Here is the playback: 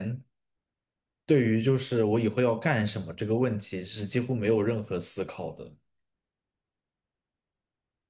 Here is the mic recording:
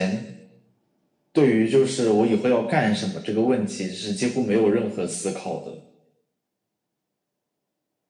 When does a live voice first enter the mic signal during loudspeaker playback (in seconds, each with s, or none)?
none